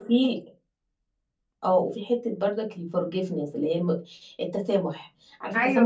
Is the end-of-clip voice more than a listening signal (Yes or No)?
No